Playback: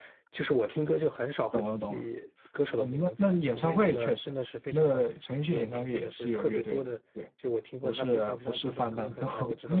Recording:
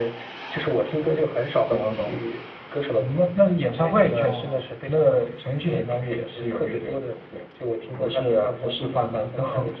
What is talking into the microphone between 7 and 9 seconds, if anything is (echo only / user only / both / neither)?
echo only